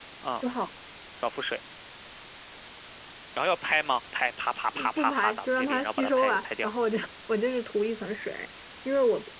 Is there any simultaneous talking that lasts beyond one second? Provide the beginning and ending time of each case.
4.8-6.7

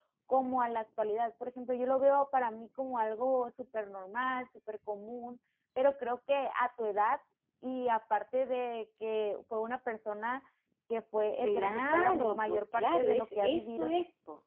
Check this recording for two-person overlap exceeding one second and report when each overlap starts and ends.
11.4-13.9

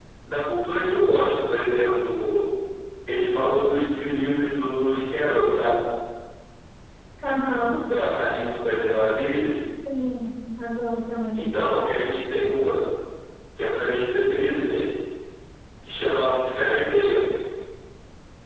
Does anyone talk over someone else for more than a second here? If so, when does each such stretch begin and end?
none

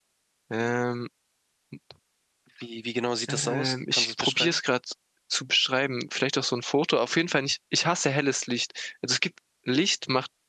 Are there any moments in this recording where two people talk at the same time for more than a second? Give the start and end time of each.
3.3-4.6

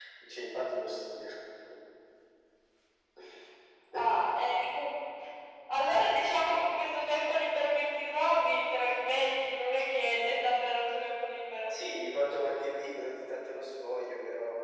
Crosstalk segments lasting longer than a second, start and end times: none

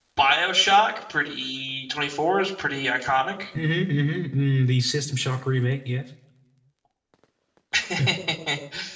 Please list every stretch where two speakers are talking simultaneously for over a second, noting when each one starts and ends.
none

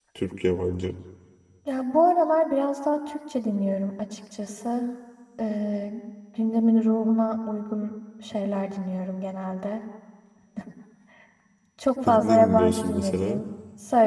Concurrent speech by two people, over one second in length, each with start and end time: 12.0-13.4

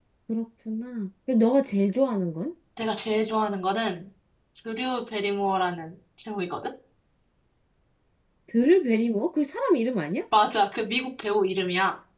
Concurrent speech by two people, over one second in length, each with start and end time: none

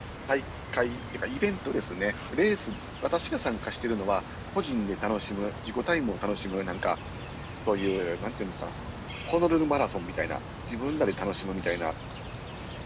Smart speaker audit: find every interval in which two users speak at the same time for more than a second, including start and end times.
none

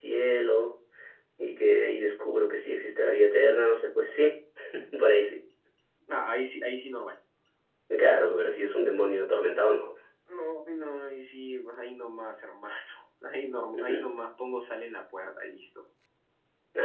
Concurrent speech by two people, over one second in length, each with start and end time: none

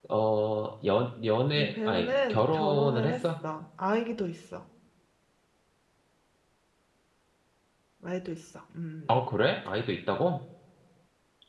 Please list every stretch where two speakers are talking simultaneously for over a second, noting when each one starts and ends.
1.6-3.1

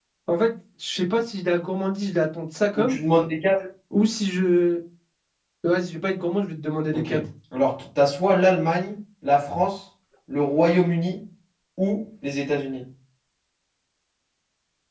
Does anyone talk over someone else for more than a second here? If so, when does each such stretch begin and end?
none

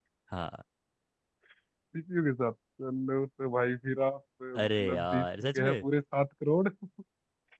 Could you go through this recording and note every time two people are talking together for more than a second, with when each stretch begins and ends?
4.6-5.8

